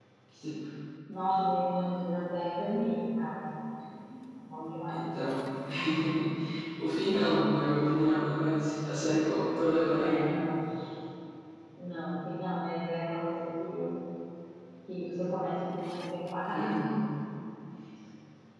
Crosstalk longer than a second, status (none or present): none